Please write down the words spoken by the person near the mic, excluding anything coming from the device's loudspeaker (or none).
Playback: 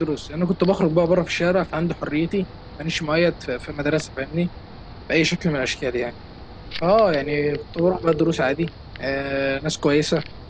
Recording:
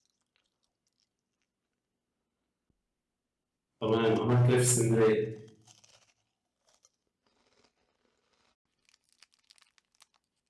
تمام عملتوا ايه في اسكندريه